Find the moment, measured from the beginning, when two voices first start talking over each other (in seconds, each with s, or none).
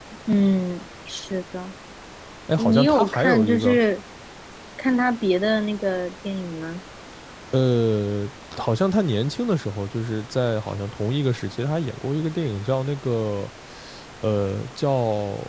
2.6 s